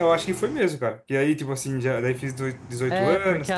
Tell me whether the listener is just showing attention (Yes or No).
No